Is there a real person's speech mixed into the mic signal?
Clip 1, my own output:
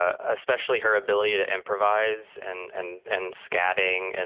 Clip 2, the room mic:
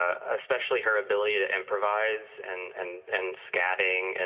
No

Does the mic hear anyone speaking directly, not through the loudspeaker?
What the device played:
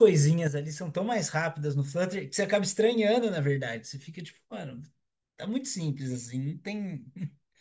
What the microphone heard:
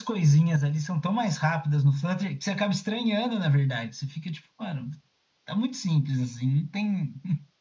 No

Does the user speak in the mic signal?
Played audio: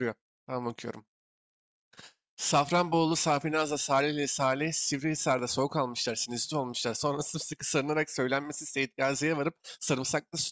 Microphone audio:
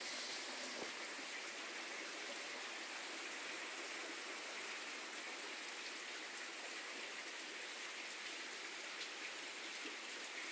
No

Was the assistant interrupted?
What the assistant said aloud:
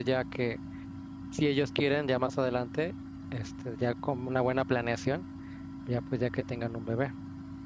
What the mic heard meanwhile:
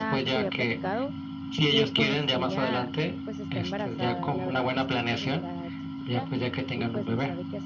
Yes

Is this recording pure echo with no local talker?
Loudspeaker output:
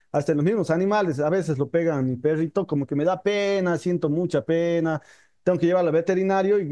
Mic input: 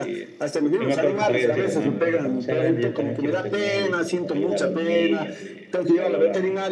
No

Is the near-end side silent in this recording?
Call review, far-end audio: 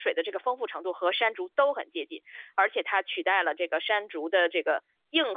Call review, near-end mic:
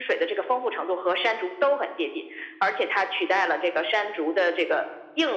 Yes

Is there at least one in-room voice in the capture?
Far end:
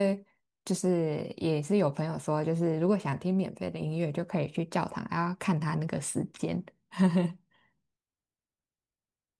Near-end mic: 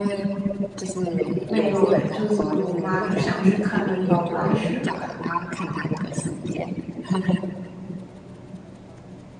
Yes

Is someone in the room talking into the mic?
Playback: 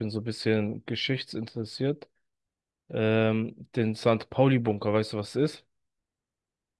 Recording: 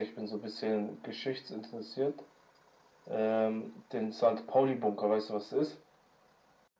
No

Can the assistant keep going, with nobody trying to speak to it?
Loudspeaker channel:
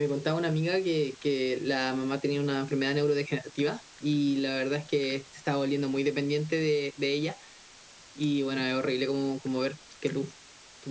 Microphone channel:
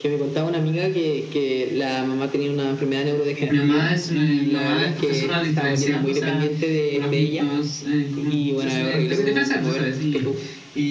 No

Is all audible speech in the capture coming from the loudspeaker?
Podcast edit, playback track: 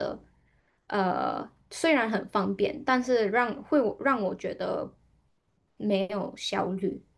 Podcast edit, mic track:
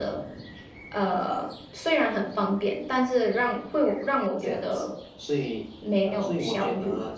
No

